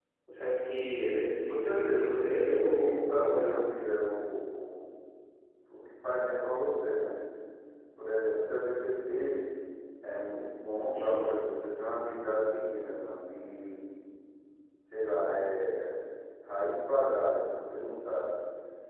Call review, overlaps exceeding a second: present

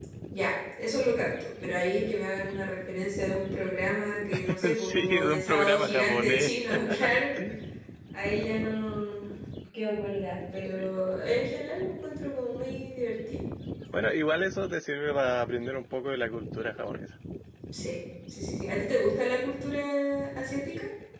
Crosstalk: present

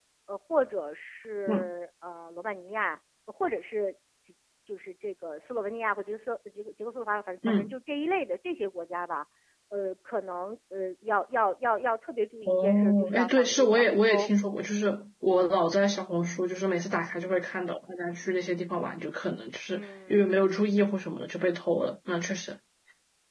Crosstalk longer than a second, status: present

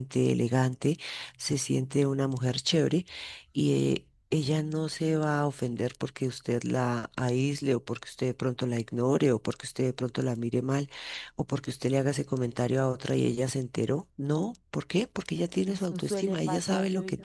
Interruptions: present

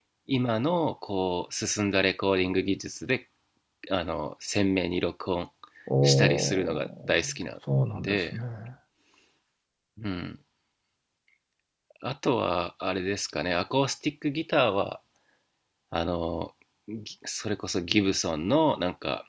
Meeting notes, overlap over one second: present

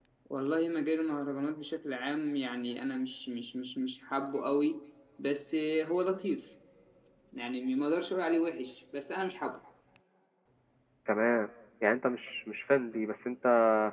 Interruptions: none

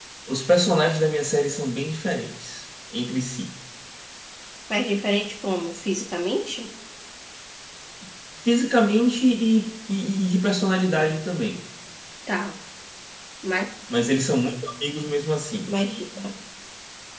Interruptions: none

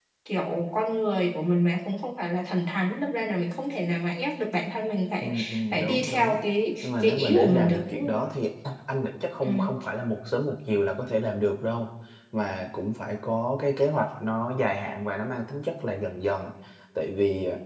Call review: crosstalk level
present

